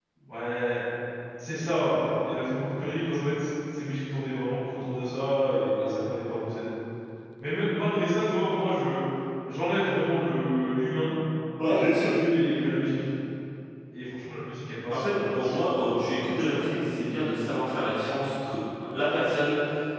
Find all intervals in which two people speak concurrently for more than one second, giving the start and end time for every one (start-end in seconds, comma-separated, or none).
14.9-16.6